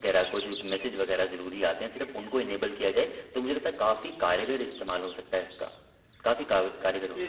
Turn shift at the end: Yes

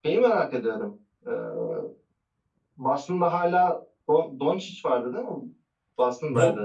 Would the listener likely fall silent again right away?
No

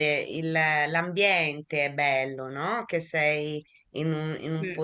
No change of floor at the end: Yes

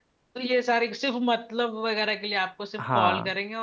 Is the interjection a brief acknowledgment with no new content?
Yes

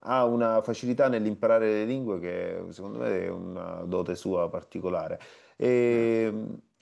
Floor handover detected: No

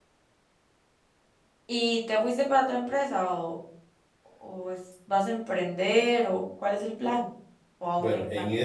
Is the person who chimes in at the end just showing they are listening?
No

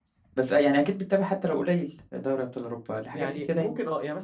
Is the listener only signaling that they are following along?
No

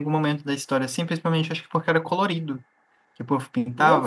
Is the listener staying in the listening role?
No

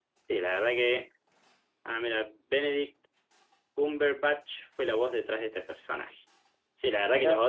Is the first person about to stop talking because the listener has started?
No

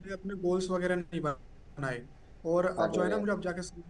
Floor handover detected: No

